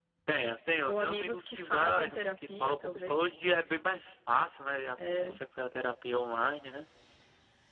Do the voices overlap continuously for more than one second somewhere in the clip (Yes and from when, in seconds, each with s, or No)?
Yes, from 0.9 s